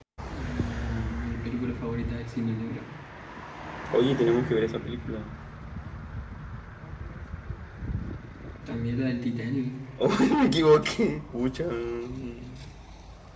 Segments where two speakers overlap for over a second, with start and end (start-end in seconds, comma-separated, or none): none